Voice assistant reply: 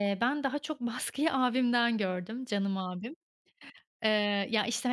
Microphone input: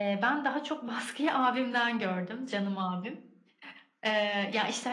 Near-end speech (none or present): none